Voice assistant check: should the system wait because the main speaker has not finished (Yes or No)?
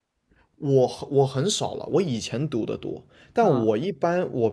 Yes